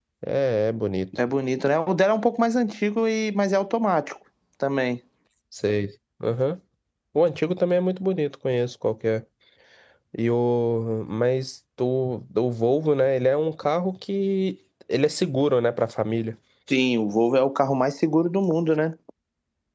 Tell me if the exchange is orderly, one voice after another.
Yes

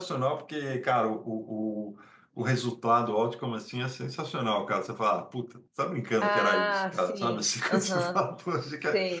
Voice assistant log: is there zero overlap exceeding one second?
No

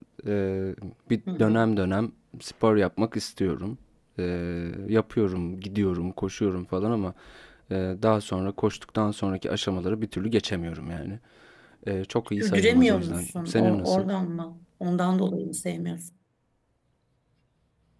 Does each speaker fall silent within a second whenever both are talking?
No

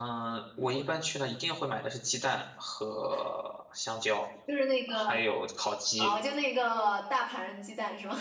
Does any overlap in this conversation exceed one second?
No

